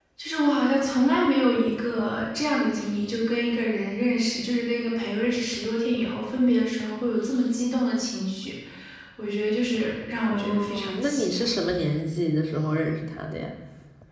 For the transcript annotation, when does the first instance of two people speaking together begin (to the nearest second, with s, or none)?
10 s